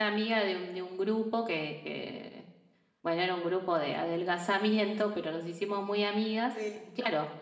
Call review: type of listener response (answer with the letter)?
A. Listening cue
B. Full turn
A